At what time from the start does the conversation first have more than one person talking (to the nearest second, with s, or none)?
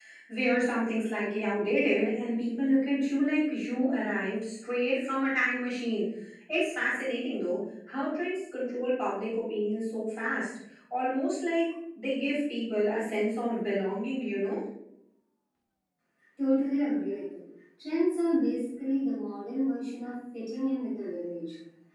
none